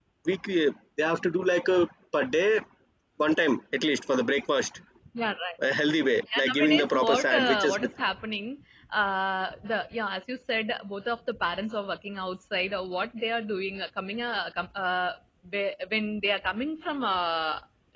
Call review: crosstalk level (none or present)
present